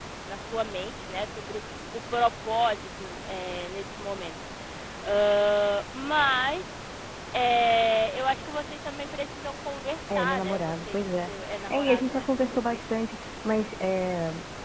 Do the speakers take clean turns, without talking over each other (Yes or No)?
No